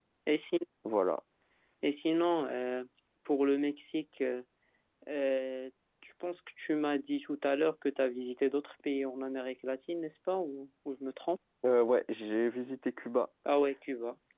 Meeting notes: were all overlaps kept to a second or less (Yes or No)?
Yes